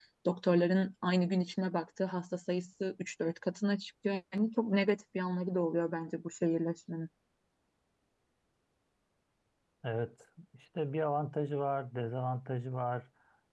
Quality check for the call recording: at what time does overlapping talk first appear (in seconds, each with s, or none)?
none